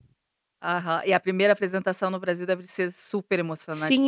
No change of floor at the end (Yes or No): No